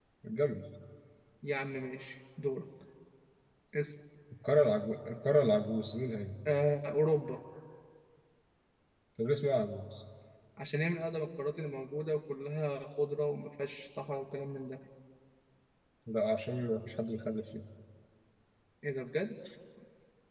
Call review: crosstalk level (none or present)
none